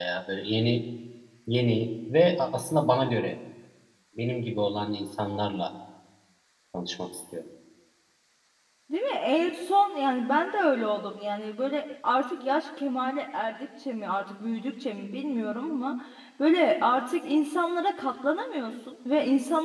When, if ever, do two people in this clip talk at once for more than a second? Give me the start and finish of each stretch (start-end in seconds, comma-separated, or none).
none